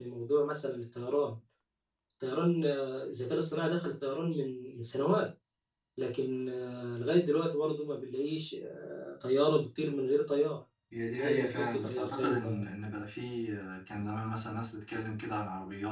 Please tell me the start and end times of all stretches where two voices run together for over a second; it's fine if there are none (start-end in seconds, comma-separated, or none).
11.2-12.7